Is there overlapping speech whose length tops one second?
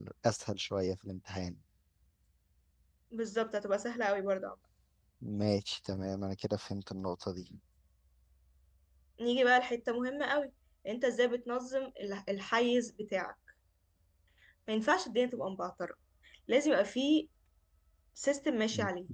No

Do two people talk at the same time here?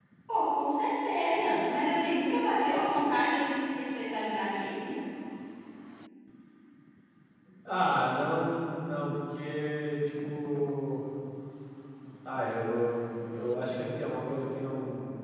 No

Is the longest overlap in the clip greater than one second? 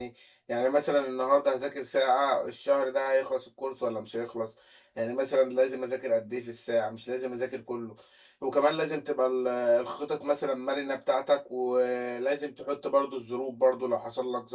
No

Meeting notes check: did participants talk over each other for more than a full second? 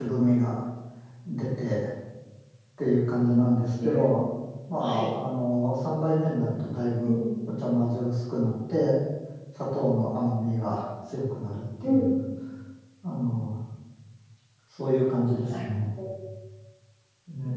No

